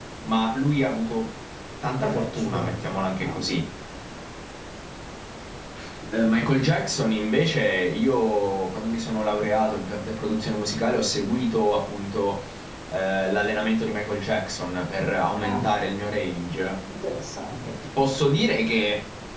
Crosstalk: present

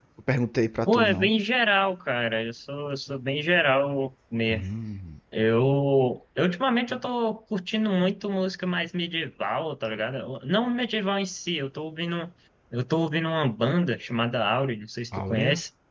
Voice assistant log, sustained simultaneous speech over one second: none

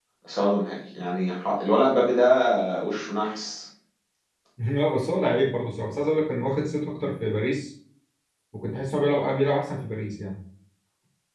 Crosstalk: none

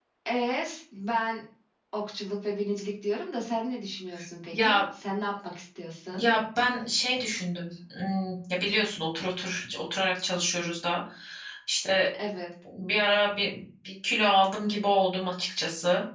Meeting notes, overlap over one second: none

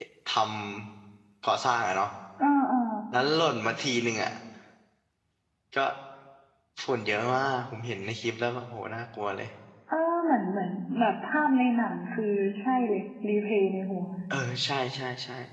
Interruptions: none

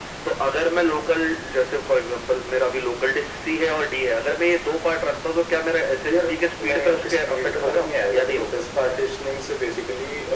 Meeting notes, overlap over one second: present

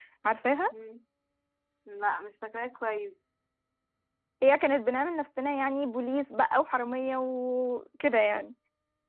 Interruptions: none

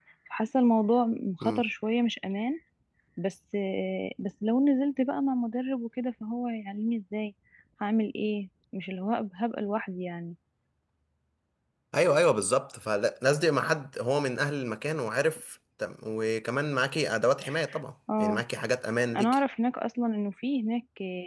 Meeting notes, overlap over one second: none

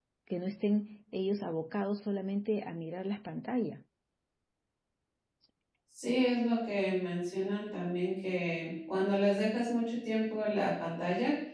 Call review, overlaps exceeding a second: none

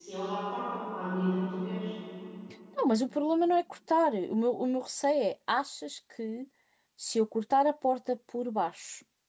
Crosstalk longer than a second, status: none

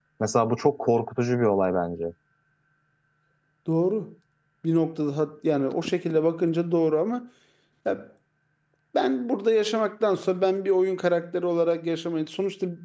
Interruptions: none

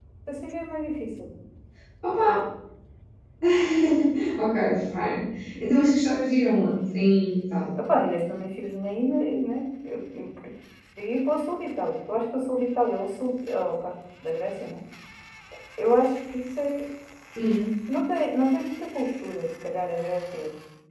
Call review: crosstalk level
none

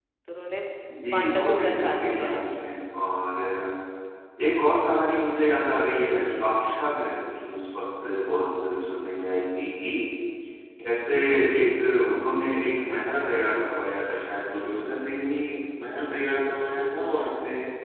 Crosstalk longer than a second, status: present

